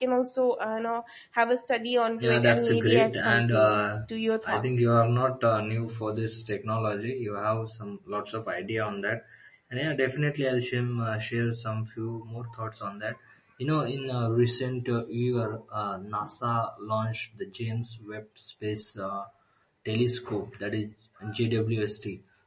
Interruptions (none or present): present